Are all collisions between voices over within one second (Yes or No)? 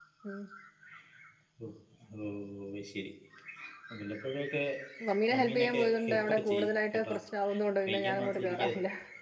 No